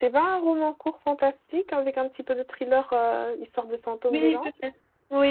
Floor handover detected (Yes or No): Yes